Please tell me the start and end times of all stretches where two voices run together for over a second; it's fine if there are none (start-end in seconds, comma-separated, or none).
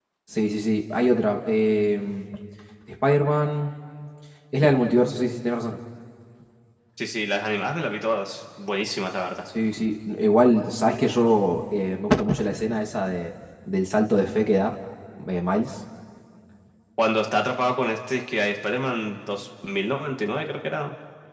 none